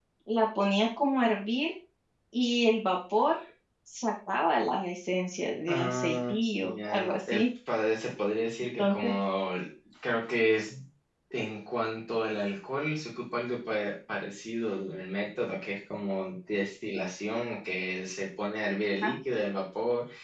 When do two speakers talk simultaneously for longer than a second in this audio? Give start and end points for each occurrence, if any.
5.7-7.4

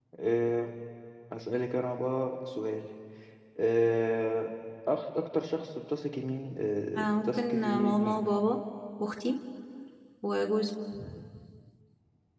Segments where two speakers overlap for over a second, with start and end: 7.0-8.2

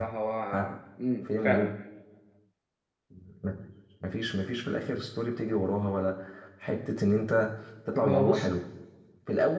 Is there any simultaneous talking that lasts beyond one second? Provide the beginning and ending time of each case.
none

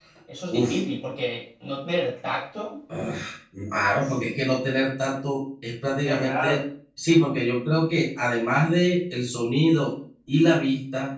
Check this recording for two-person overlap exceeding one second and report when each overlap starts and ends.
none

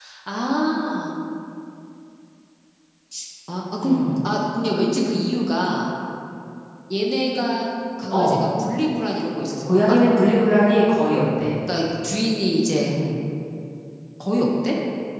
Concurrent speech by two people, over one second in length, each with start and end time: none

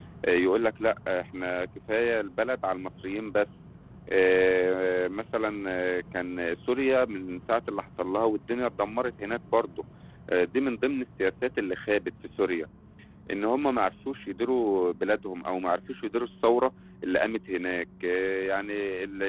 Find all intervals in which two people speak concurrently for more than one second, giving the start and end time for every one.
none

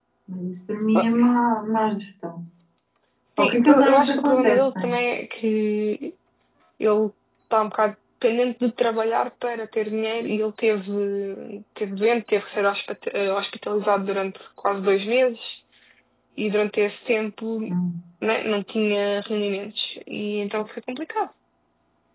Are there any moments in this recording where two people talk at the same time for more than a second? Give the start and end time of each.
3.4-4.9

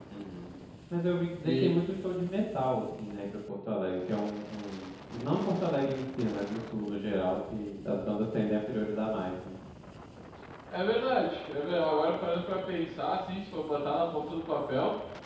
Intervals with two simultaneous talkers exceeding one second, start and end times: none

